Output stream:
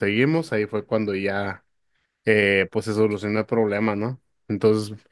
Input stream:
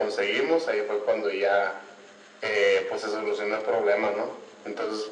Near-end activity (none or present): none